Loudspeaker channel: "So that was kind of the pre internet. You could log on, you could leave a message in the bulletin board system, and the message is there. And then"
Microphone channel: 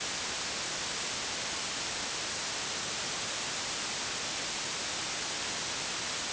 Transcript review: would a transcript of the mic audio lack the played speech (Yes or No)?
Yes